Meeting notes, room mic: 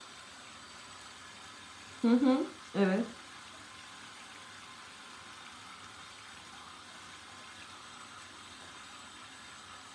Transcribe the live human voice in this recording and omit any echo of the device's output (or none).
Hı hı. Evet.